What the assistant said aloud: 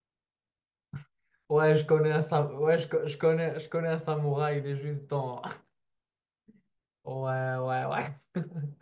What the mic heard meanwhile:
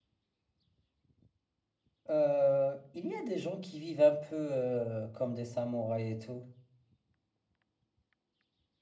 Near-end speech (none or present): present